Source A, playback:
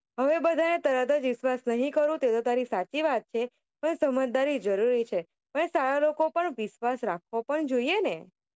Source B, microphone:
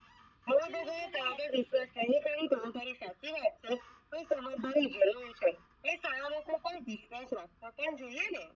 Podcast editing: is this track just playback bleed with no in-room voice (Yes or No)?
No